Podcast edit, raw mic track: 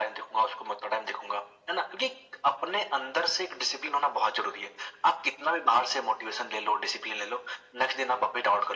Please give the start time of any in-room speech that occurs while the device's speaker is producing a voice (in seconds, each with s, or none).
none